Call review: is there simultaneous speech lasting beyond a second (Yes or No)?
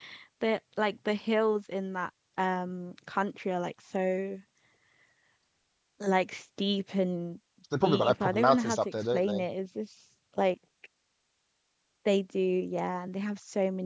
Yes